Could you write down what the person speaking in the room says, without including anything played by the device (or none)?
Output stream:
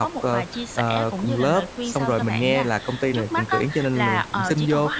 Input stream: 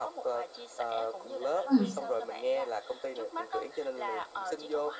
Ừm.